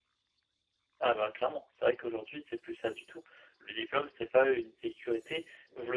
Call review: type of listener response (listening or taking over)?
listening